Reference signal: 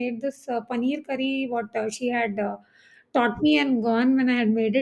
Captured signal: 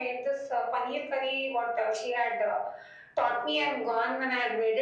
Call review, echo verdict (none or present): present